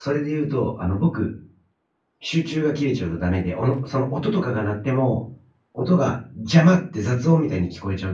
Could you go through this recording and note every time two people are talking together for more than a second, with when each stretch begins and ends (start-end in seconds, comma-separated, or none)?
none